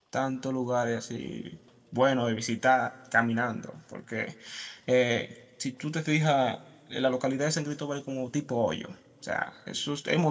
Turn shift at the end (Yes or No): No